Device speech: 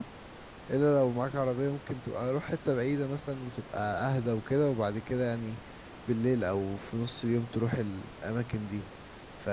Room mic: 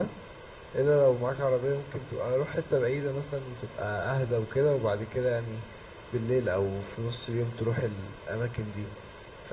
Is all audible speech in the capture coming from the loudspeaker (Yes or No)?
Yes